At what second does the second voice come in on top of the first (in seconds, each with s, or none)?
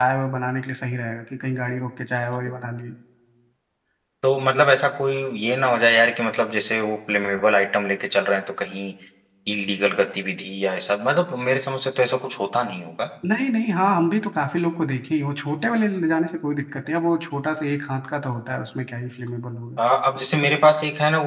none